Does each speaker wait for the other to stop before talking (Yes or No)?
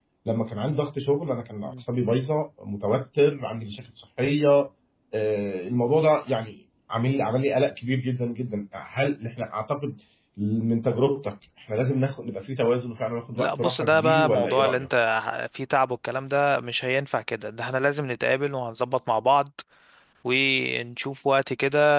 No